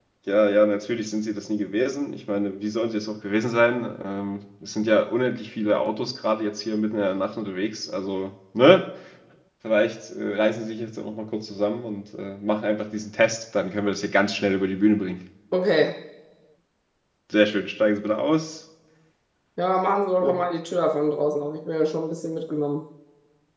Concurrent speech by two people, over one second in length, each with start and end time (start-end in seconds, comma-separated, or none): none